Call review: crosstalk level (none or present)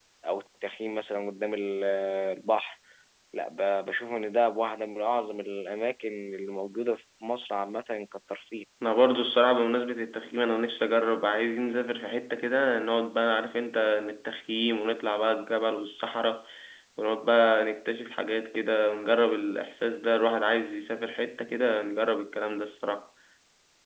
none